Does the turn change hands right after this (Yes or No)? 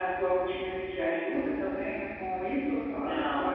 Yes